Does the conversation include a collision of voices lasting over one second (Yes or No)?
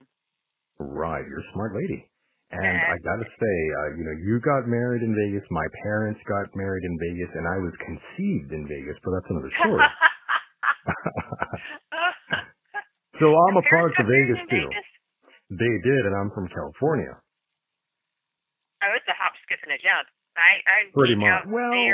Yes